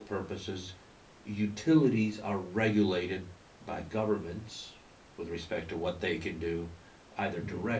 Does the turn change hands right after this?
No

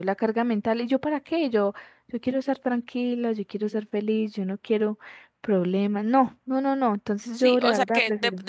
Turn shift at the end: Yes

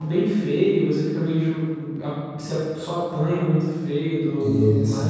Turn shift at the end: Yes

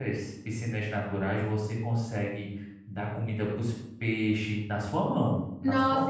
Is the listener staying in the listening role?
No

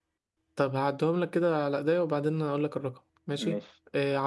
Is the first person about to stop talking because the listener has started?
No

